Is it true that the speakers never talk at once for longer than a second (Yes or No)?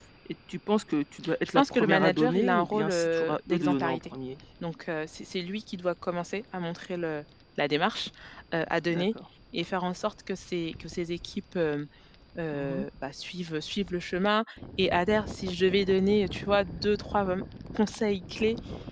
No